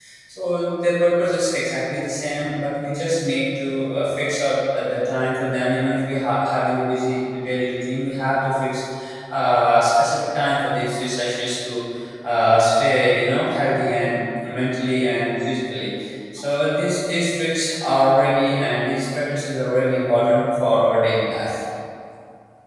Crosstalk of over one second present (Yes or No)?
No